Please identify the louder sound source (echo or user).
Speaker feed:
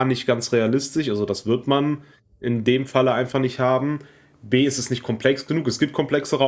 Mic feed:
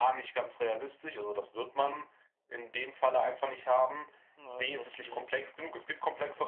echo